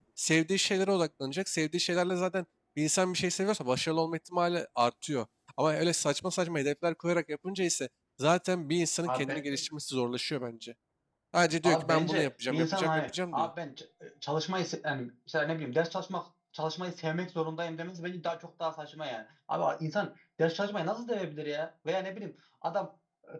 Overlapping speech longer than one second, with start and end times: 11.6-13.5

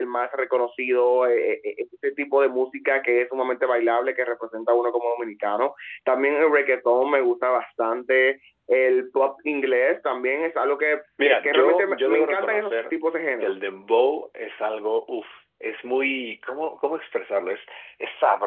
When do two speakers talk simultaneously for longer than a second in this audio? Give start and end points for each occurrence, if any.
11.2-12.8

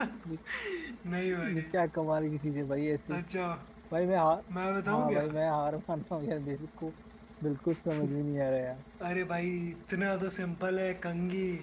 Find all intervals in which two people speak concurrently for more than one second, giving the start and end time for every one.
none

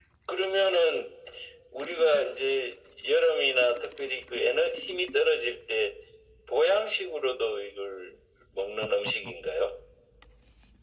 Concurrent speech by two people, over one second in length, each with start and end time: none

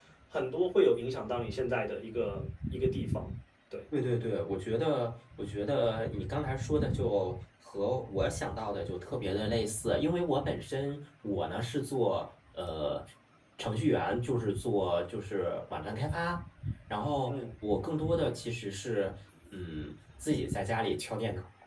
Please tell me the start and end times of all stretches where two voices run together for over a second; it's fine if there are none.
none

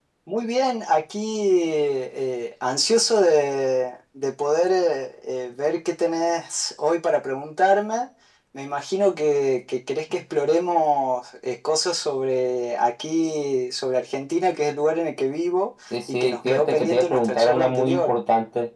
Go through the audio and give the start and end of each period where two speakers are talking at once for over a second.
16.1-18.1

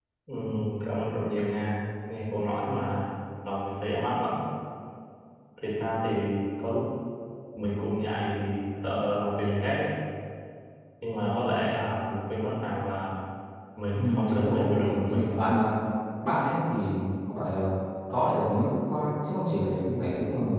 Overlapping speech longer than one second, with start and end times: 13.9-15.3

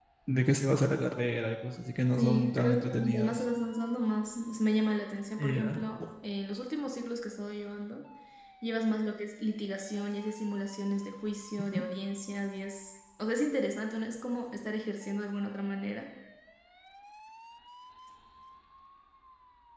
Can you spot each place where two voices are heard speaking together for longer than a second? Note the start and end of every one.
2.2-3.5

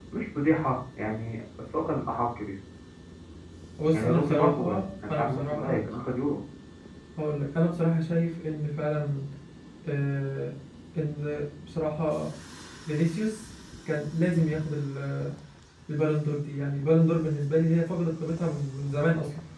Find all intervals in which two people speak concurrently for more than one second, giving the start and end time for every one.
3.9-5.8

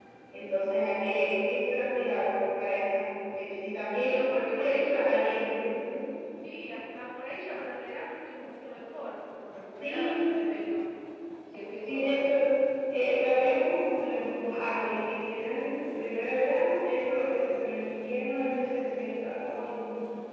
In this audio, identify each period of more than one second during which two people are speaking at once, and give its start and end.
4.0-5.3

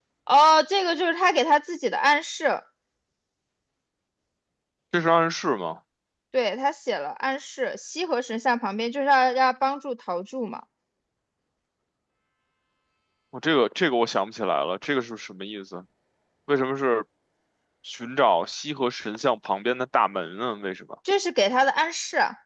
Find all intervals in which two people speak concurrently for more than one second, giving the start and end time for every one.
none

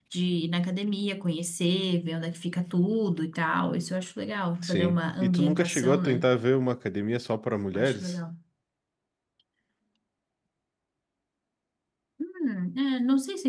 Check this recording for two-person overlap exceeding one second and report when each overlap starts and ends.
4.6-6.2

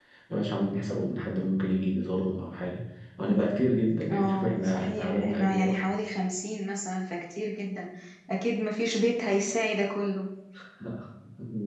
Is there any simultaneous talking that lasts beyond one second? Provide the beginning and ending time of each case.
4.1-5.8

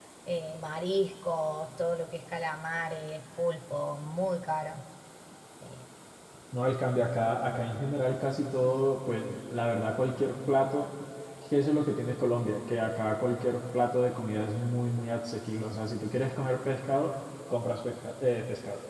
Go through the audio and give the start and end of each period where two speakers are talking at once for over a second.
none

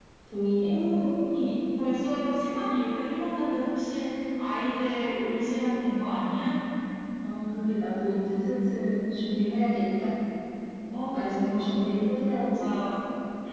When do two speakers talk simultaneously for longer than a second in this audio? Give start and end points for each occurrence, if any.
11.1-12.8

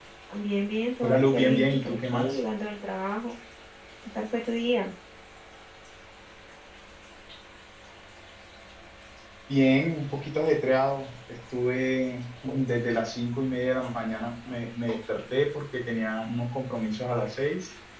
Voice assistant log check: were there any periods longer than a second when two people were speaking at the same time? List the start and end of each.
1.0-2.4

